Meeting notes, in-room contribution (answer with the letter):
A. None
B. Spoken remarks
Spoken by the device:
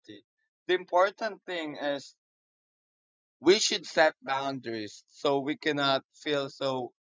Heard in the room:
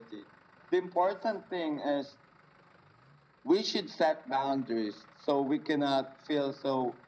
A